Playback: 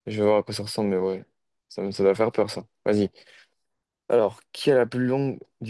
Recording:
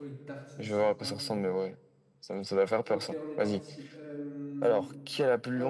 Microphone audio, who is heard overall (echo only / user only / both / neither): both